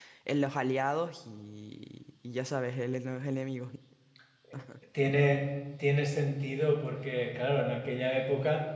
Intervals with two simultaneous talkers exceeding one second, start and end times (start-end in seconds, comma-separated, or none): none